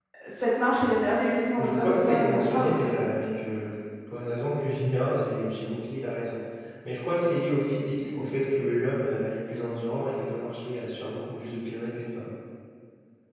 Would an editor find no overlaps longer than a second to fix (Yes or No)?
No